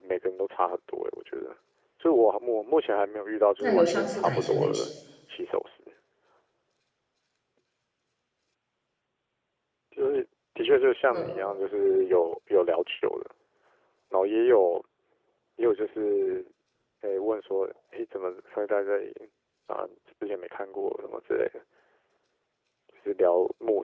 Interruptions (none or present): present